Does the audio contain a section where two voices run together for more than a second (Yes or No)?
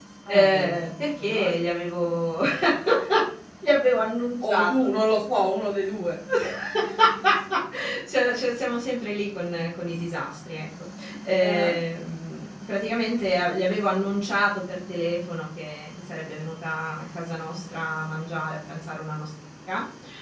Yes